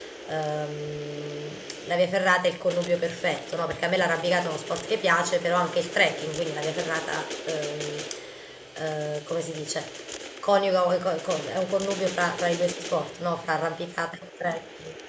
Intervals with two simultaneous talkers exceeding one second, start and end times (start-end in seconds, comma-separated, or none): none